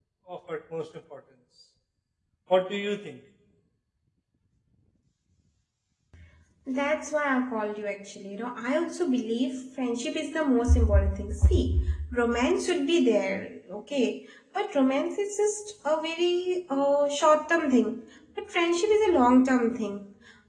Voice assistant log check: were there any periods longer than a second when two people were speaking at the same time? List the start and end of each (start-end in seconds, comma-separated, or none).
none